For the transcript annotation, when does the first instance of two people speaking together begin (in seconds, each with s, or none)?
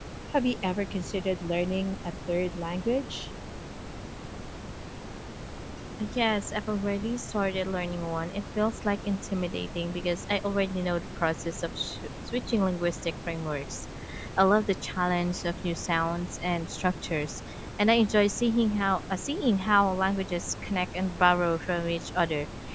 none